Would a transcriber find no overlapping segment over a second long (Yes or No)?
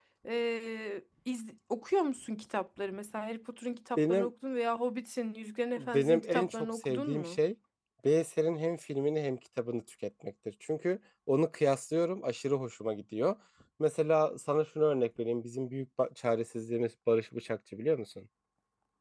No